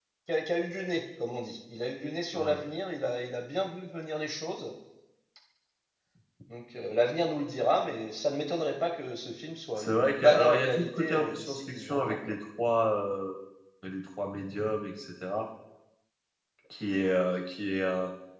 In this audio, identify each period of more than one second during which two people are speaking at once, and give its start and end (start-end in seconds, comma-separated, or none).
9.8-12.2